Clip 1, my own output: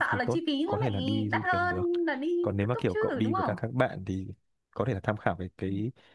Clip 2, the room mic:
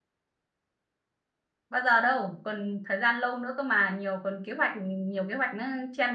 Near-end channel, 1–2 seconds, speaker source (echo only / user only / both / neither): user only